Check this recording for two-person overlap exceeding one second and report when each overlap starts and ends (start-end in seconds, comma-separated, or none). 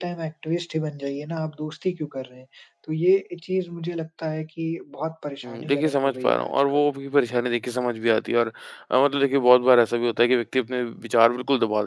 5.5-6.8